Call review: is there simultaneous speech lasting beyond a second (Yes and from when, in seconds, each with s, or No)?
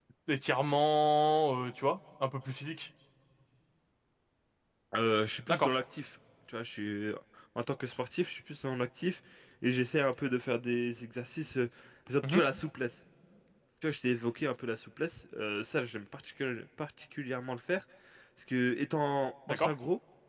No